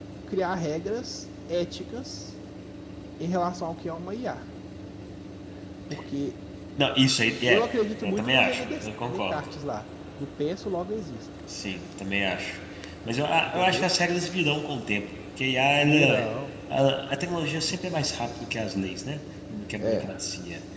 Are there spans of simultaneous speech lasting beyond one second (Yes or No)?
Yes